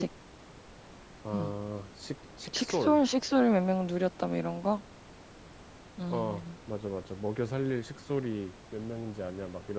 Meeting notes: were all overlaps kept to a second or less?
Yes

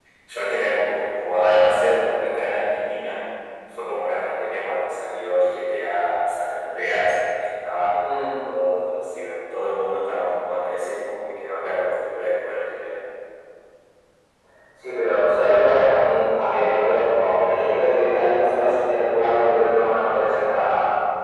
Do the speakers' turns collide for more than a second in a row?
No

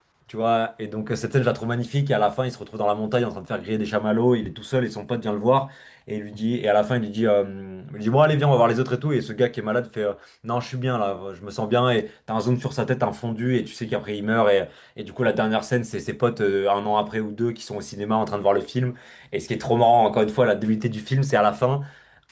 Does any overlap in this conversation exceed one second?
No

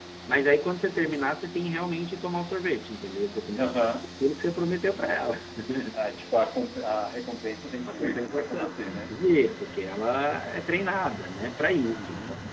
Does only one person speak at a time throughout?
No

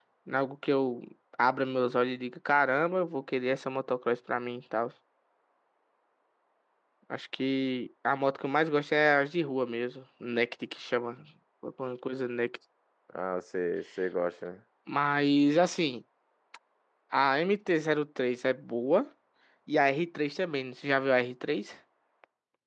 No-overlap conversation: Yes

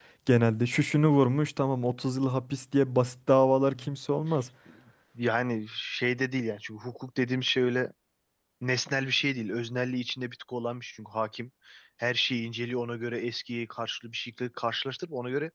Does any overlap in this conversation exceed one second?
No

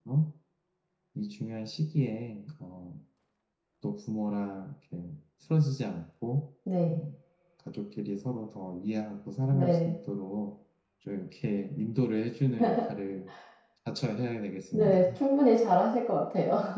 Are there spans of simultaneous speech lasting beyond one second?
No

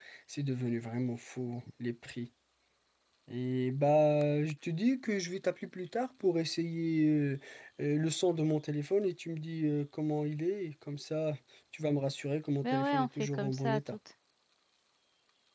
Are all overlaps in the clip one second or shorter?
No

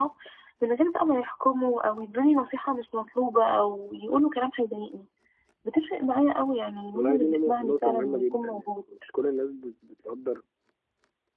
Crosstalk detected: Yes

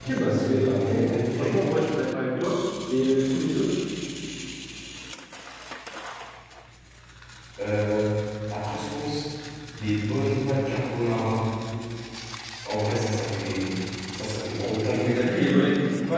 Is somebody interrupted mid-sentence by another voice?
Yes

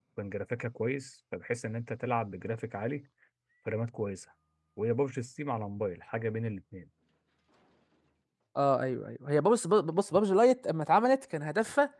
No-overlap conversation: Yes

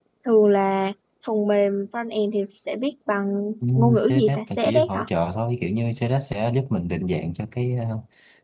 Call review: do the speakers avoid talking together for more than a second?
No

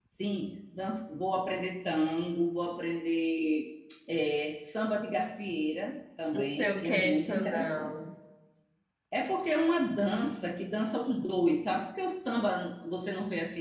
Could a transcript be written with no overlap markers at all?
No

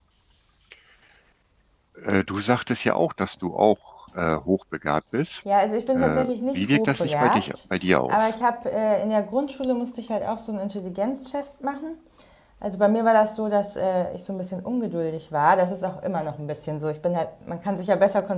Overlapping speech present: Yes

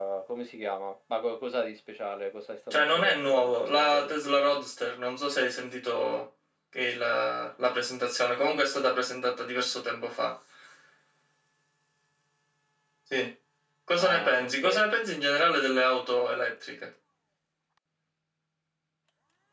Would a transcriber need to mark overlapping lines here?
Yes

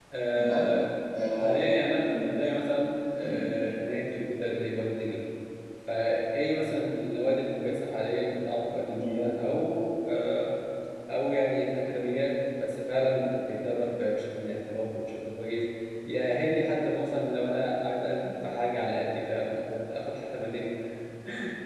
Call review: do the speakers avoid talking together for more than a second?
Yes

